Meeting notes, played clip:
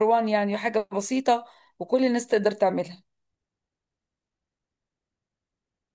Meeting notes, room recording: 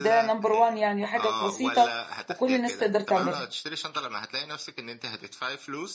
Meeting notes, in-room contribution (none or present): present